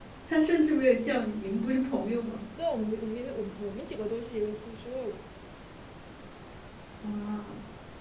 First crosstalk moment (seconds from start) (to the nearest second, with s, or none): none